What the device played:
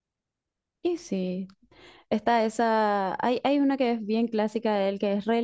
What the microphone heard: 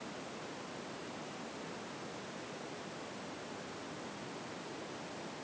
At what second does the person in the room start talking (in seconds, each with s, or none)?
none